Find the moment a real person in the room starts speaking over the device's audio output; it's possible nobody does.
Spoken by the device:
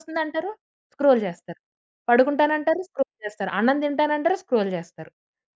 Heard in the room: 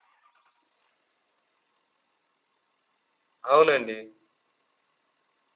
3.5 s

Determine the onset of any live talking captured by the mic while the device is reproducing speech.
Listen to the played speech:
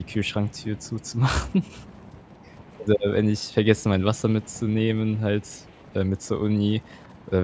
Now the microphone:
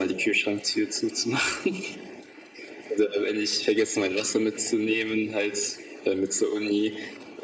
none

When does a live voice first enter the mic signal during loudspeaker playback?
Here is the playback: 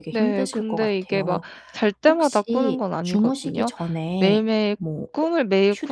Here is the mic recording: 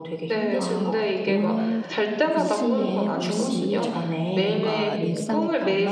0.6 s

